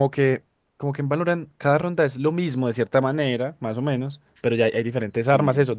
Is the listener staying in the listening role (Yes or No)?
Yes